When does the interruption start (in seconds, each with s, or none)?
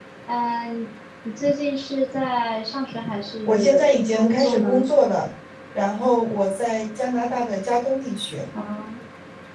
3.5 s